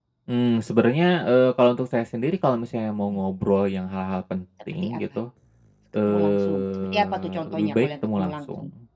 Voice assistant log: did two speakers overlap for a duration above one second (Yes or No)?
Yes